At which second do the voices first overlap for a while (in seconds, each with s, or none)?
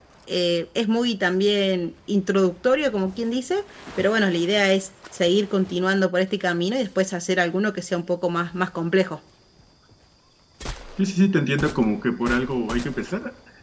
none